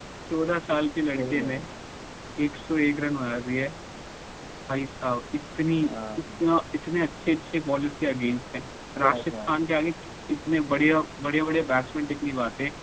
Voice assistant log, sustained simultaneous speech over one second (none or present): none